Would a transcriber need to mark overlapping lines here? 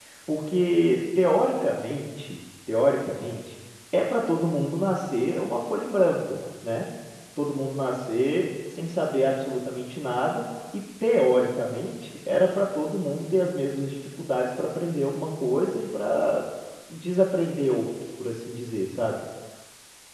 No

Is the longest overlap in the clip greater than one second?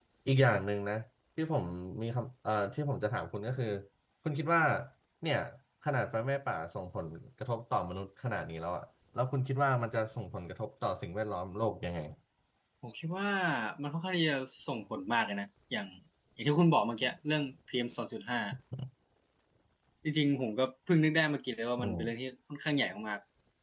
No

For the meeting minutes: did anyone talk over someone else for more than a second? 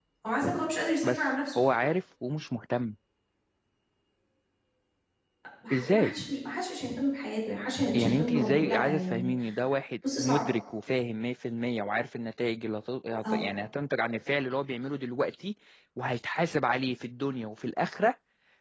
Yes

